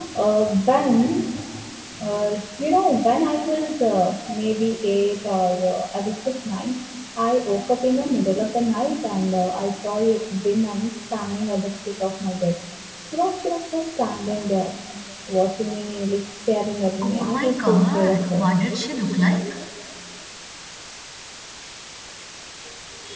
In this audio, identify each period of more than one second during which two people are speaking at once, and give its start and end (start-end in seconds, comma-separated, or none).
17.0-18.4